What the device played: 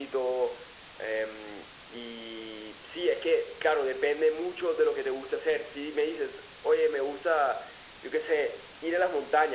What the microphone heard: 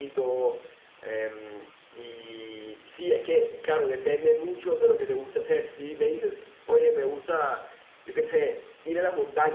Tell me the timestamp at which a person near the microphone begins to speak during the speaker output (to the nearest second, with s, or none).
none